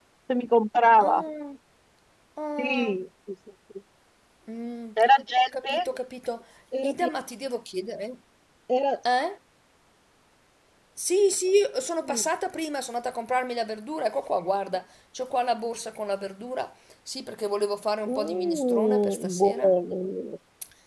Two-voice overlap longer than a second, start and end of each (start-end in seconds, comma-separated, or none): 18.1-19.7